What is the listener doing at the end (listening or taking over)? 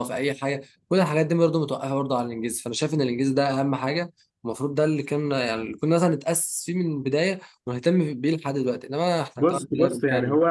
taking over